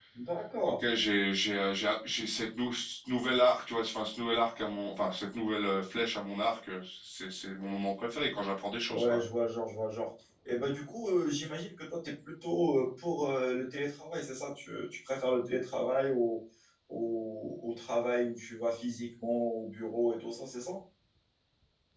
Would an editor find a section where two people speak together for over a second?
No

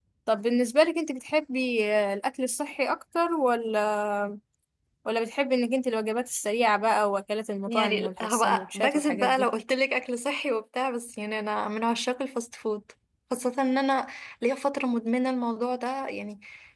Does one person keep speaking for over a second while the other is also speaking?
Yes, from 7.7 s

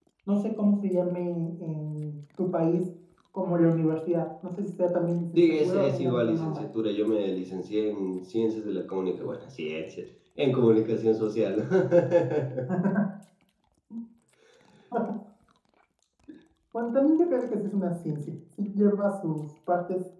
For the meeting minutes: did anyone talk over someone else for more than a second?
Yes, from 5.3 s

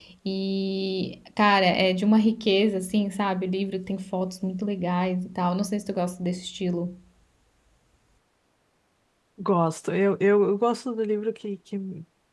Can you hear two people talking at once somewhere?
No

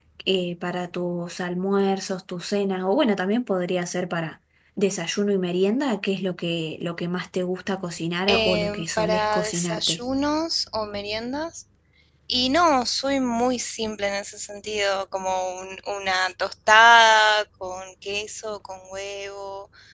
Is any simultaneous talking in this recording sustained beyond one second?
Yes, from 8.3 s

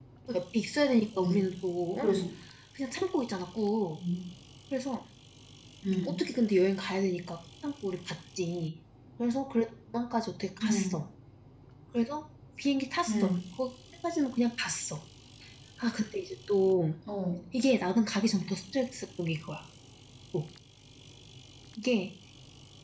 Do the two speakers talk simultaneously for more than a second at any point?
No

